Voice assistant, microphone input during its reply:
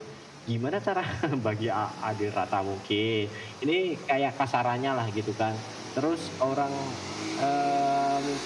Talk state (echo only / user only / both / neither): echo only